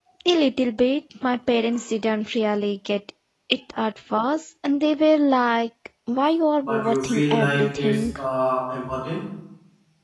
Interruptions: present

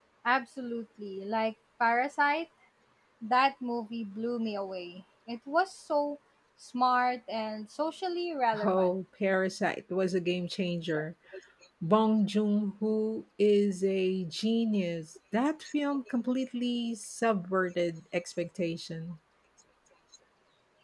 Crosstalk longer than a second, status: none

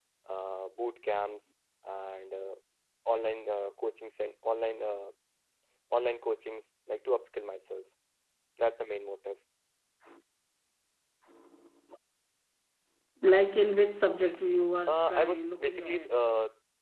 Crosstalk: present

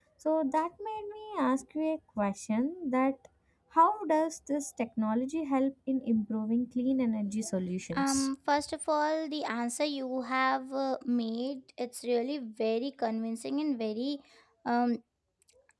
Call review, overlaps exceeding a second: none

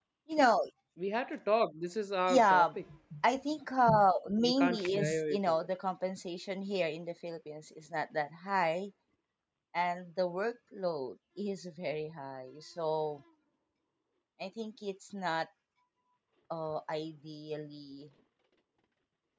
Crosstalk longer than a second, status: present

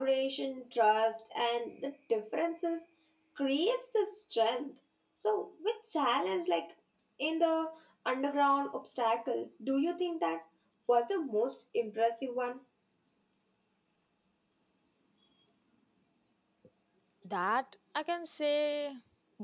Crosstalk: none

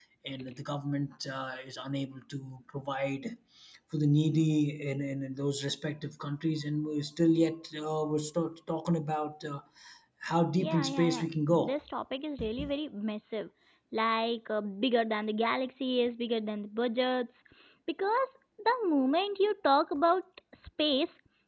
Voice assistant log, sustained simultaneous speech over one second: present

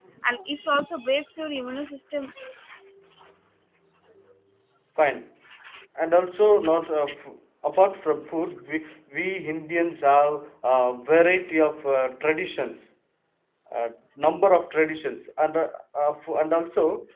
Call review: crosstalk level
none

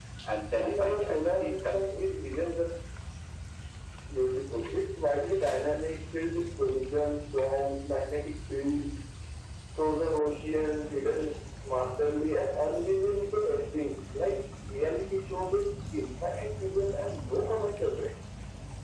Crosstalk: present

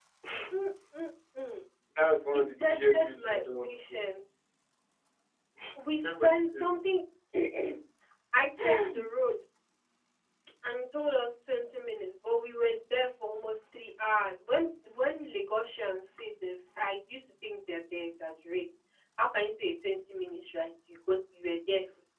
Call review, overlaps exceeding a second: present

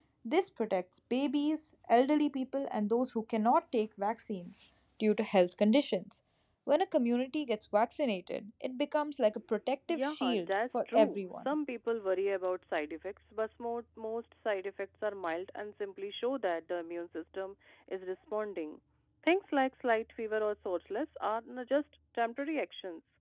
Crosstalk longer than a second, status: present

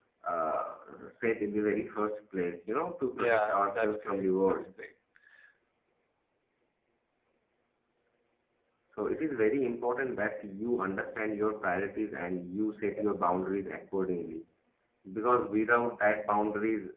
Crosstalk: present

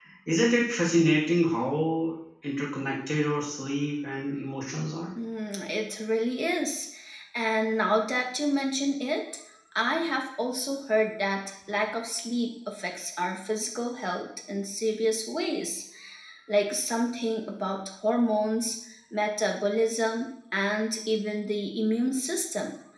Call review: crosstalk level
none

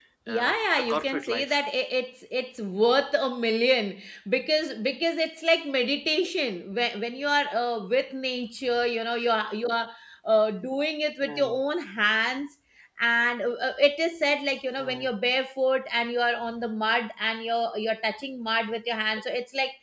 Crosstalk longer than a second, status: present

